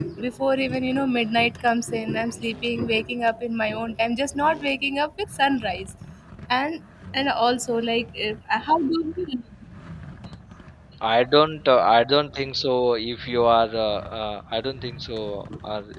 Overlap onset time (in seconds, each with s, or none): none